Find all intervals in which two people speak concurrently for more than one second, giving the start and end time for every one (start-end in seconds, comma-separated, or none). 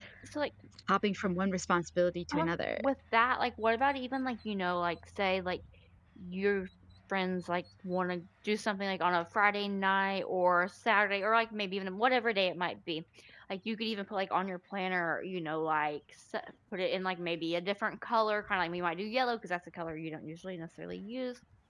none